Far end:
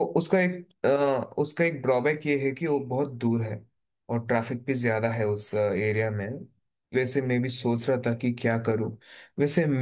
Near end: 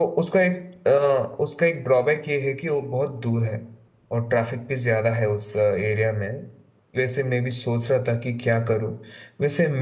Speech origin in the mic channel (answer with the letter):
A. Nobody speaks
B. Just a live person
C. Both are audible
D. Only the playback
D